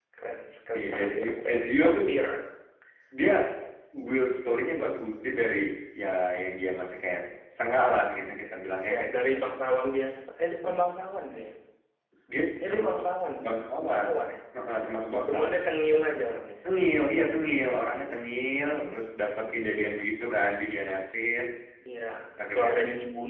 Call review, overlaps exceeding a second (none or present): present